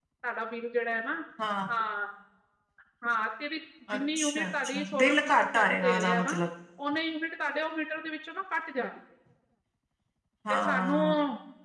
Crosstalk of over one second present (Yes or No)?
Yes